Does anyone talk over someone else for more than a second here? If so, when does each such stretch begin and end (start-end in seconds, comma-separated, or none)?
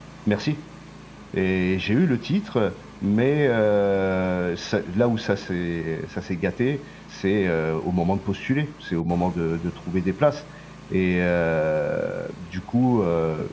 none